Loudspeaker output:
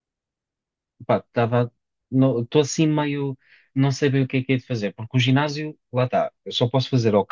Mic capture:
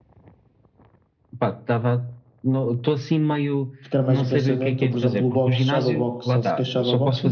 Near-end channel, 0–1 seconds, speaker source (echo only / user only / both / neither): neither